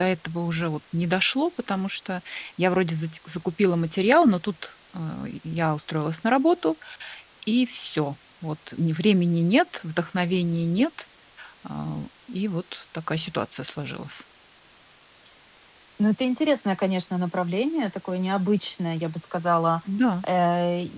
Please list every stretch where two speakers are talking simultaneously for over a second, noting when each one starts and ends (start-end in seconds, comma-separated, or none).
none